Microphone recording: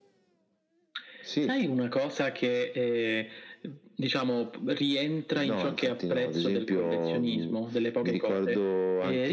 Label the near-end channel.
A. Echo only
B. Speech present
A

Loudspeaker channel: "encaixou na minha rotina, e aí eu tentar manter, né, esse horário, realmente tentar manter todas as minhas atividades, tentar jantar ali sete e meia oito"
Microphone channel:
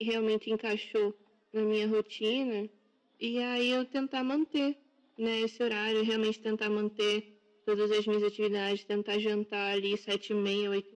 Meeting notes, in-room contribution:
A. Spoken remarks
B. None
B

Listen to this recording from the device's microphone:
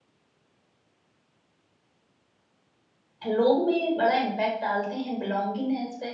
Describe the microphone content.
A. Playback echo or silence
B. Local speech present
B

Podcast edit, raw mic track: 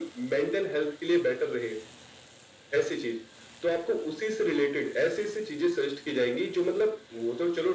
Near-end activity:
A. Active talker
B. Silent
B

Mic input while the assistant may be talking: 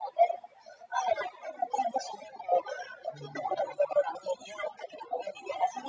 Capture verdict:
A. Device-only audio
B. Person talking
B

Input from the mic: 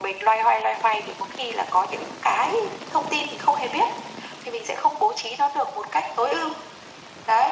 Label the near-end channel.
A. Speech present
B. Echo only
B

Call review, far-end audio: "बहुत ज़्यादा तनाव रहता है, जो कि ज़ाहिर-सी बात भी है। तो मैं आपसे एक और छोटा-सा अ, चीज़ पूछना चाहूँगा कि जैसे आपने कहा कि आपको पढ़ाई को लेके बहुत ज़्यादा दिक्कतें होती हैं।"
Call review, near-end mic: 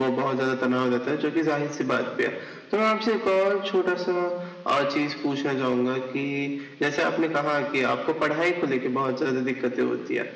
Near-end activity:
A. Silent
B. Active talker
A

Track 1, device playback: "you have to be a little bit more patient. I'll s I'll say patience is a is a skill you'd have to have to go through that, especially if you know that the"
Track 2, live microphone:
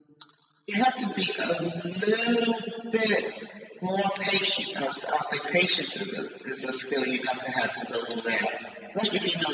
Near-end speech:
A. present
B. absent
B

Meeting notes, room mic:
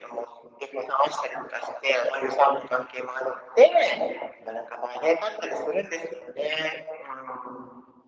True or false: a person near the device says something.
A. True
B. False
B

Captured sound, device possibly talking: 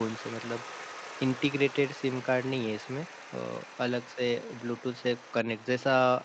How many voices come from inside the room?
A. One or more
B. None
A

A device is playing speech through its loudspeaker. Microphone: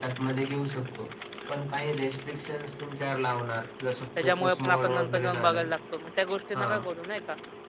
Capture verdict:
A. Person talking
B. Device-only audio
A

